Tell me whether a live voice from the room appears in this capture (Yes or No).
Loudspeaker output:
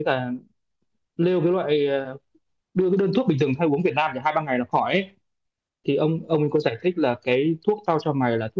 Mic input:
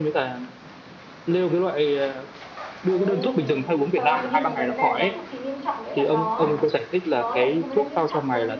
Yes